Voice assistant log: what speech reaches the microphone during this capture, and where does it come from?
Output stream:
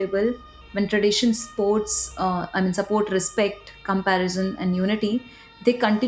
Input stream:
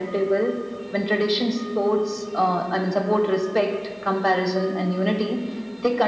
echo only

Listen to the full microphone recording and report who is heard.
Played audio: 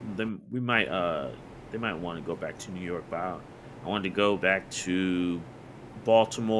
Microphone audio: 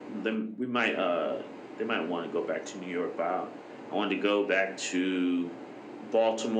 echo only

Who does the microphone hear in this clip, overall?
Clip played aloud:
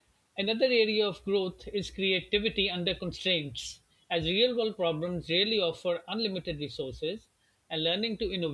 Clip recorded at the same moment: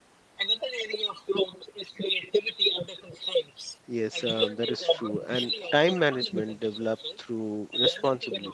both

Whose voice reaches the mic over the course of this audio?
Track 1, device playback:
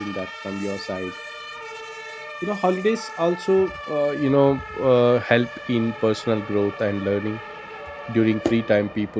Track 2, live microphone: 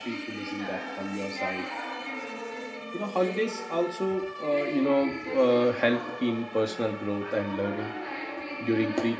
both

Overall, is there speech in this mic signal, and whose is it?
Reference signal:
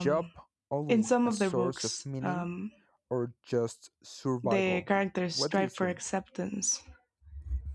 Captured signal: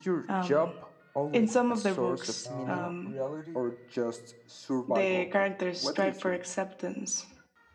both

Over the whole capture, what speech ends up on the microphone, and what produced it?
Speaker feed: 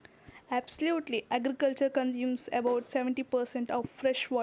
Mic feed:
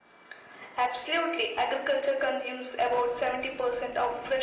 echo only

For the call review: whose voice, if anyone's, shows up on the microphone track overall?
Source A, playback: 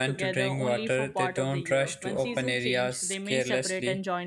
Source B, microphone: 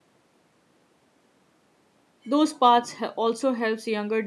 user only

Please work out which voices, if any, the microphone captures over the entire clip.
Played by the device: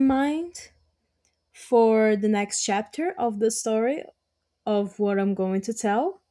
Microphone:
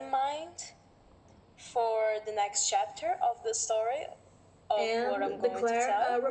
both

